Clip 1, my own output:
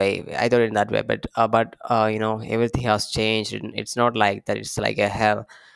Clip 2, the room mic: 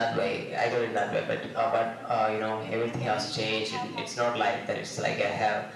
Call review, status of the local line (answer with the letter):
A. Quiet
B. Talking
B